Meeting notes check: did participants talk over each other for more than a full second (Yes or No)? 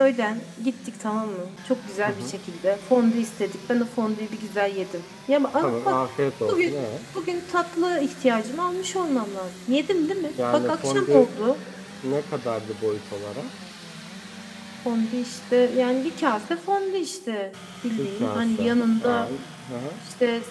Yes